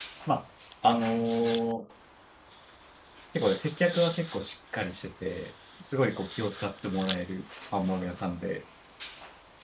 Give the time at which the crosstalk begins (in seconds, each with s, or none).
none